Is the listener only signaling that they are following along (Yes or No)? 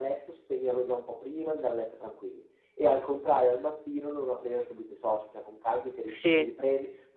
Yes